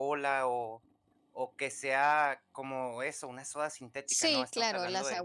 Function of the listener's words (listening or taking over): taking over